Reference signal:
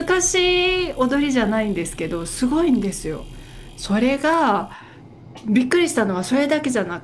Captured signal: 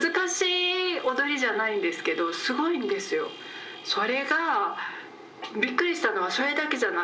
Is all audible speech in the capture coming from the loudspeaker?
Yes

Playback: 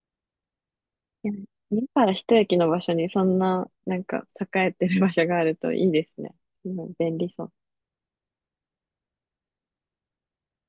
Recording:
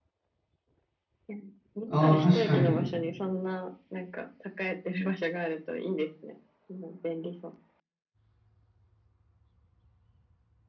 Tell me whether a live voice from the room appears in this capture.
Yes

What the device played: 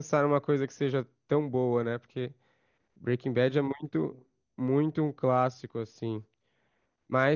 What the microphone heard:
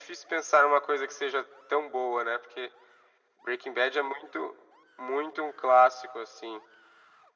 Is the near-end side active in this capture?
No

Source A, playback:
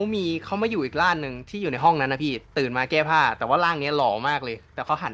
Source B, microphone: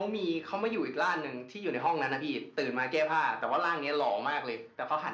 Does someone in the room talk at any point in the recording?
No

